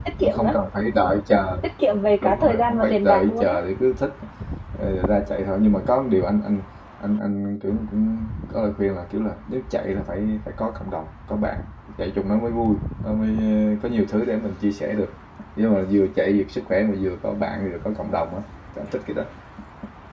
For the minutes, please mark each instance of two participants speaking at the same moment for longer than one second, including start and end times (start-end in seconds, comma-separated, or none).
2.2-3.6